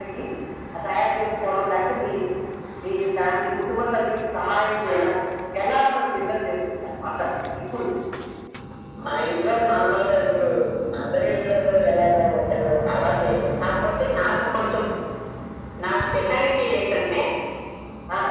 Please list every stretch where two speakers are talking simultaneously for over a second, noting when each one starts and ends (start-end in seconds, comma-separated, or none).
none